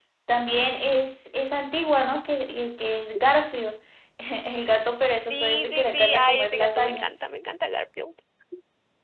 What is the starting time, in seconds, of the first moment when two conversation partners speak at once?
5.3 s

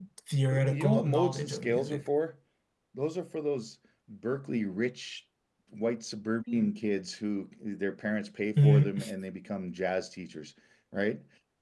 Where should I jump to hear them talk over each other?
0.5 s

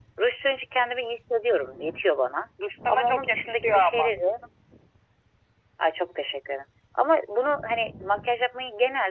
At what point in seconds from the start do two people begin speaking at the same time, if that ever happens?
2.9 s

